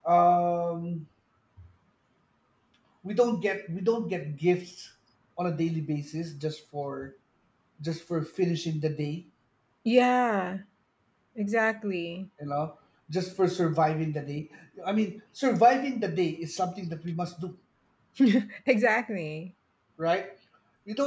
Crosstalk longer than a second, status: none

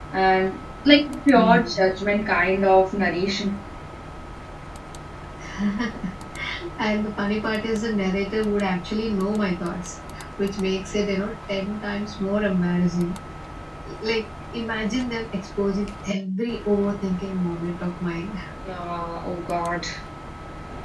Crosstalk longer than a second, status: none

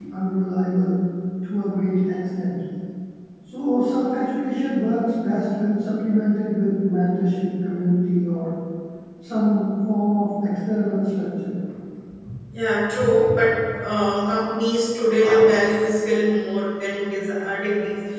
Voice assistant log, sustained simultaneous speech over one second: none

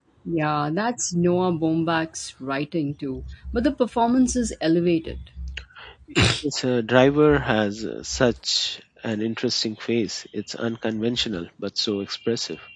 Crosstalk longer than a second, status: none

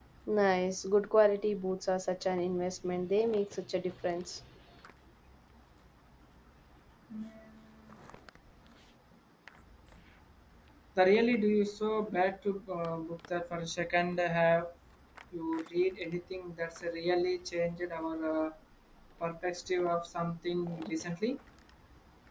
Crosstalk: none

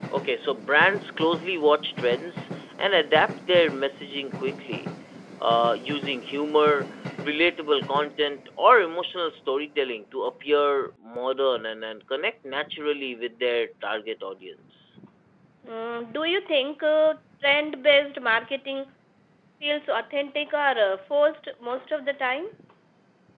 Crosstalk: none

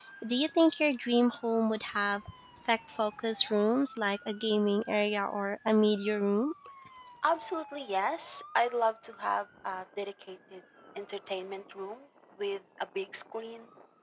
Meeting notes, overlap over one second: none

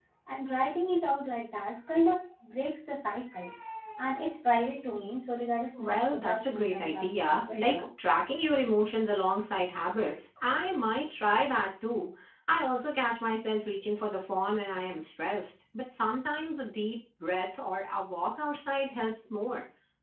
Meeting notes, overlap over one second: present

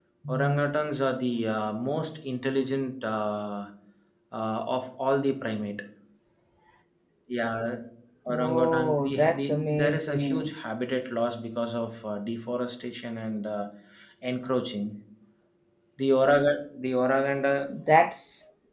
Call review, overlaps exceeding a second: present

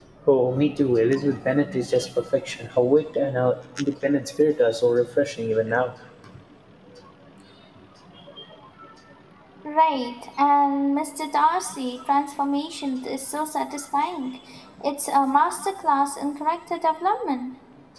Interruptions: none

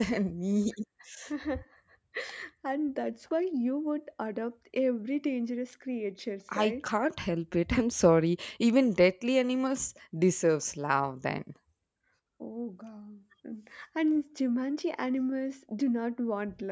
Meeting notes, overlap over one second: none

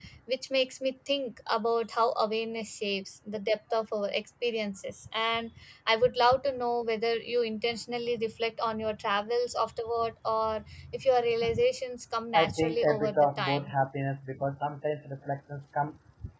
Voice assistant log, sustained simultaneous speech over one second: present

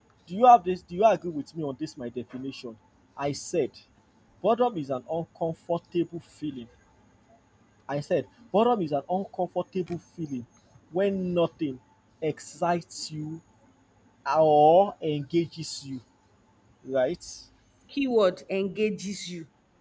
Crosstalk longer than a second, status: none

